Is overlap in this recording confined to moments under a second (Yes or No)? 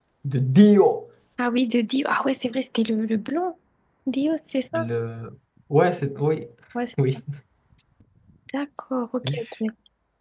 Yes